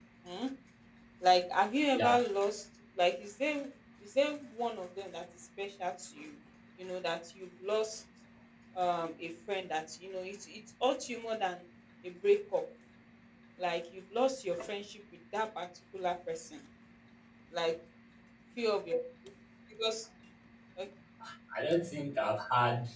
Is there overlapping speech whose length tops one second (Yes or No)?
No